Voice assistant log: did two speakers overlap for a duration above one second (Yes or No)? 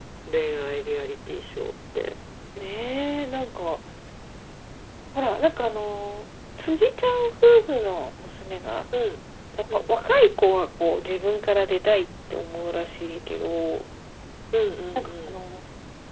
No